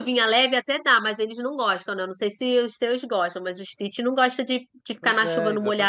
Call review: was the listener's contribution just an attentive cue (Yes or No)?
No